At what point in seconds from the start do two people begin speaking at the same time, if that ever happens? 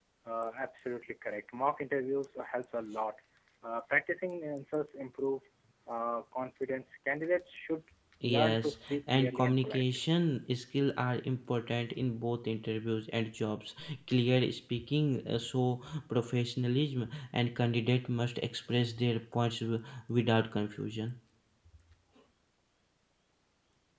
8.2 s

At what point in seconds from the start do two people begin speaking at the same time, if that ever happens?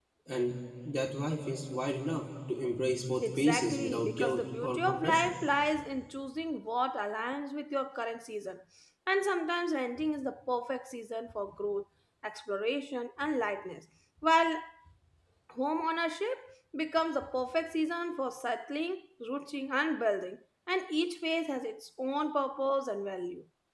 3.2 s

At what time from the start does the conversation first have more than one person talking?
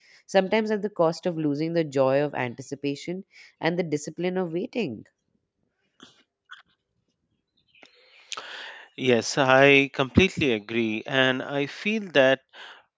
none

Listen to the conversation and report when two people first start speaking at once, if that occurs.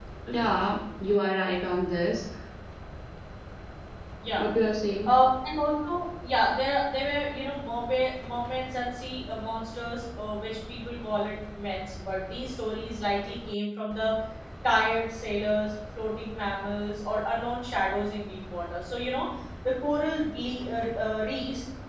none

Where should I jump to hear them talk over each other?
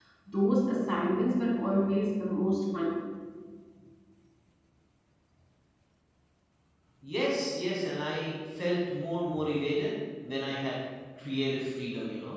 none

